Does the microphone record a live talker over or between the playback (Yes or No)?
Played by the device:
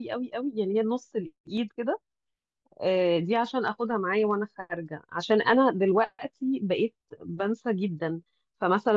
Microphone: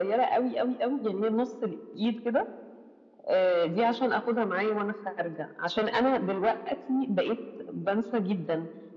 No